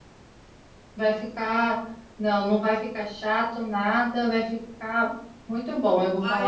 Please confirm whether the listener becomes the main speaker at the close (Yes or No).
Yes